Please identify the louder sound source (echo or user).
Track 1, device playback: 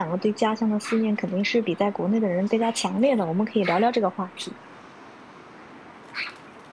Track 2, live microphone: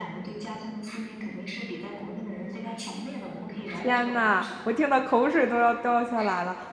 user